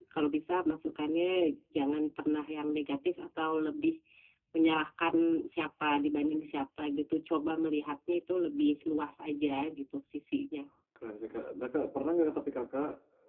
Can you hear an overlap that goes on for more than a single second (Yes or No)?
No